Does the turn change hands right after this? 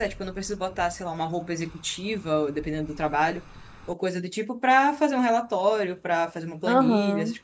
No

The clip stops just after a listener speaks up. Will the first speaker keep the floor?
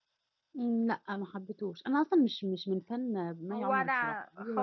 No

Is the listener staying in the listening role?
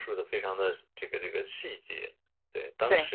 Yes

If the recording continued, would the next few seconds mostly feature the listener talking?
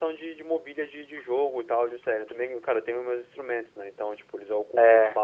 No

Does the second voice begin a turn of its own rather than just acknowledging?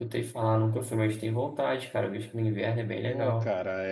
Yes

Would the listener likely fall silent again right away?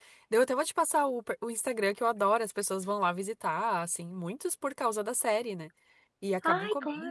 Yes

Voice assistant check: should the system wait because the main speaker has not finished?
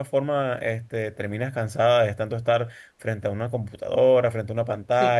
No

